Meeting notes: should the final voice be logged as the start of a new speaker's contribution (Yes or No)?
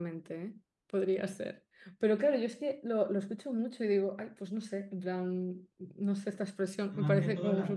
Yes